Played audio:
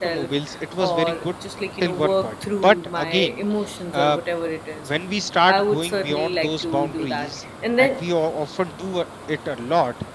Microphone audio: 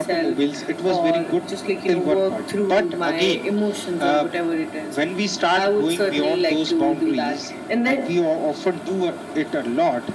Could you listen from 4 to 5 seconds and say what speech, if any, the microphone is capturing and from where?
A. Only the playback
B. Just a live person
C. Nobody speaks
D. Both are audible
A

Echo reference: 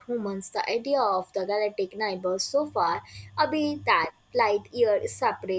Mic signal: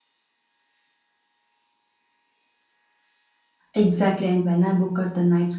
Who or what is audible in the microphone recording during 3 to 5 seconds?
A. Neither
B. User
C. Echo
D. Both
B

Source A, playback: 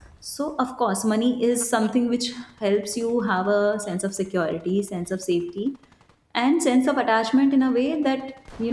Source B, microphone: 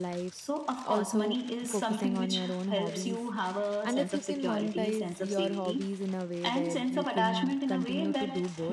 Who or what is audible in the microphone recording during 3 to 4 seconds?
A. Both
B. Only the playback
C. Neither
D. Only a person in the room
A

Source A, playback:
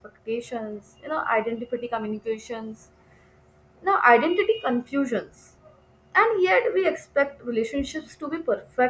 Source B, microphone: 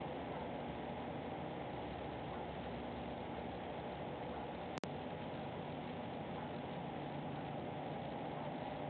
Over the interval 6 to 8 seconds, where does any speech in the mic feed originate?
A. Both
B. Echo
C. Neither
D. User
C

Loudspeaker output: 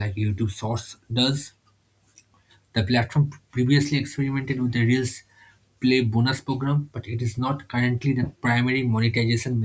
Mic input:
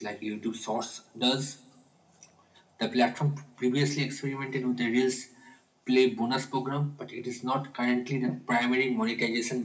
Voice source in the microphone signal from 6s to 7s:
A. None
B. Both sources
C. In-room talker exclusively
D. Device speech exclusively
D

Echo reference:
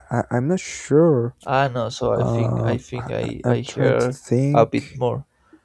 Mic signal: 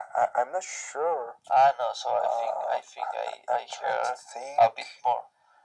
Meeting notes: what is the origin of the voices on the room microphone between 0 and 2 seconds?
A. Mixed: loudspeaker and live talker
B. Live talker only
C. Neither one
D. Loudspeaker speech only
D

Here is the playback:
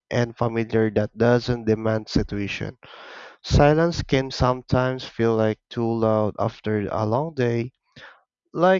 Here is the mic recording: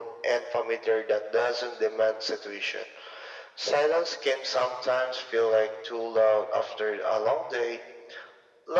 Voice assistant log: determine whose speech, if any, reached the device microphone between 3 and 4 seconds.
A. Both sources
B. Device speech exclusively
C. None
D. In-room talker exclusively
B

